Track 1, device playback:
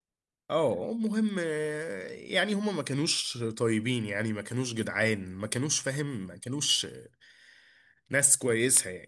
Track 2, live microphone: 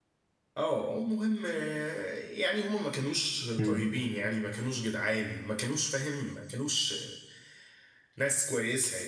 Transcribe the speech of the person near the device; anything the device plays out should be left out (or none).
مم.